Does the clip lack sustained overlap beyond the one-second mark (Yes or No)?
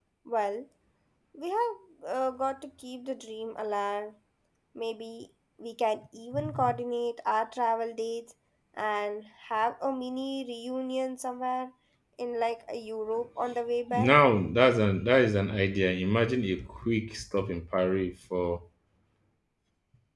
Yes